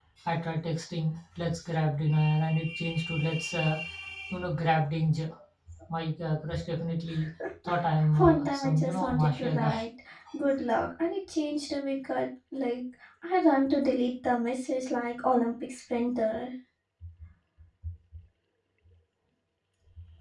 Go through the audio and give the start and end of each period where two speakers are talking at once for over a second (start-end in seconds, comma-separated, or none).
8.2-9.8